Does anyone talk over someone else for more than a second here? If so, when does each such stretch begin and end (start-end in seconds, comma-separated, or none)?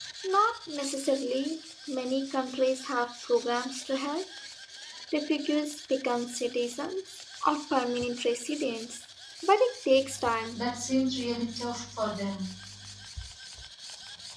none